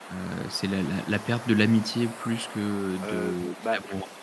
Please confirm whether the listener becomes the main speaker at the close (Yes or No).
Yes